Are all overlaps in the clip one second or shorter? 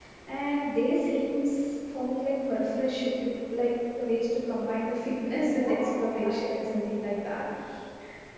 No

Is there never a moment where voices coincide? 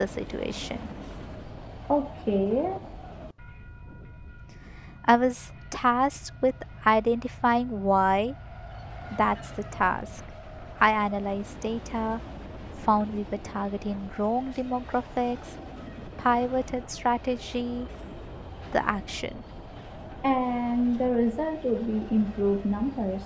Yes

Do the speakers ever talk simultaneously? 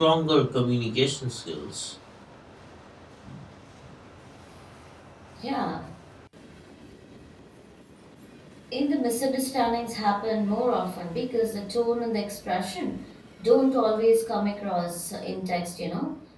No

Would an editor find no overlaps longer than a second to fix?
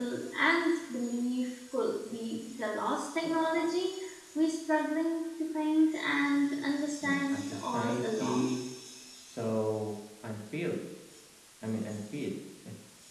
No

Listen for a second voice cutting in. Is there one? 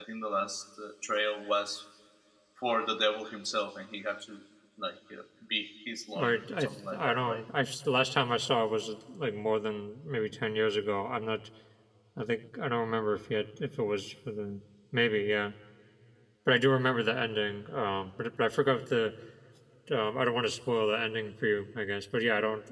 Yes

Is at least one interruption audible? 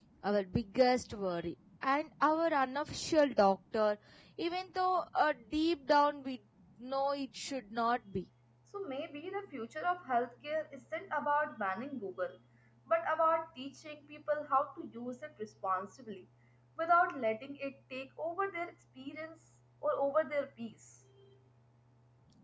No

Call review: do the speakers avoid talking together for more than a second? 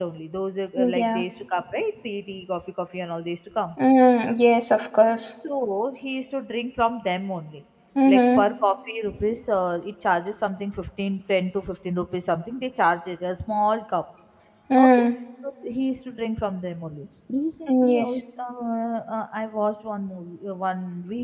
Yes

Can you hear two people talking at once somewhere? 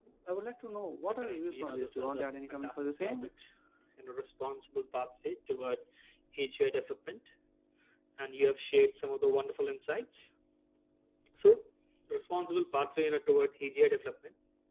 Yes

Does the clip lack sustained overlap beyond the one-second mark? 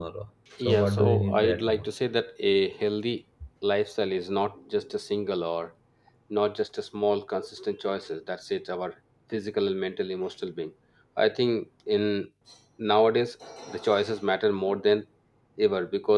No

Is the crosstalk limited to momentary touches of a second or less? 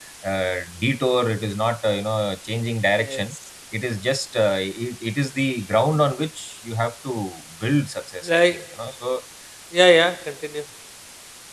Yes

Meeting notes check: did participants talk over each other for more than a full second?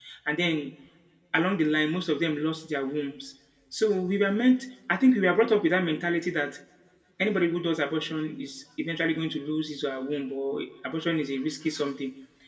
No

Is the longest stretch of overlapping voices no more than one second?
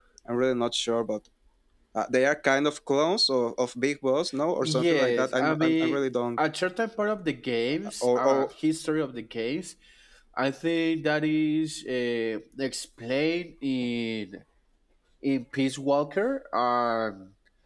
No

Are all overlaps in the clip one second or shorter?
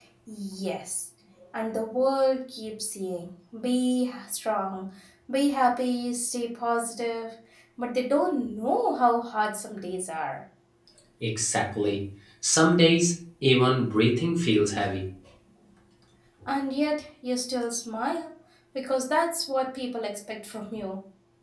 Yes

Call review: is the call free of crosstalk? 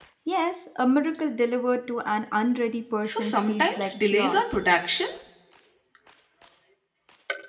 No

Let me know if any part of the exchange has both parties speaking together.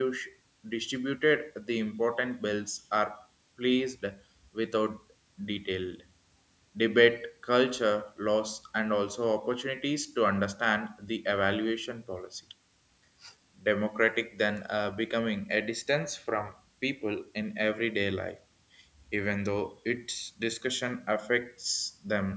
No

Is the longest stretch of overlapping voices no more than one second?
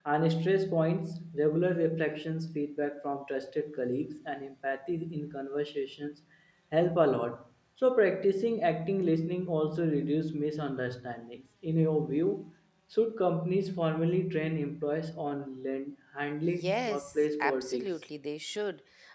No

